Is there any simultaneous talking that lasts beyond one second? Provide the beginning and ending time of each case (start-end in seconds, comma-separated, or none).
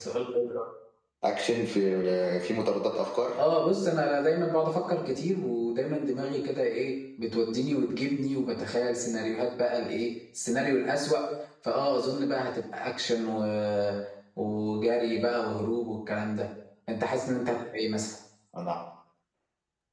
none